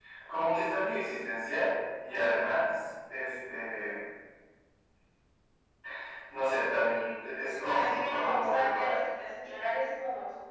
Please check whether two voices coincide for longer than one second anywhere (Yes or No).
Yes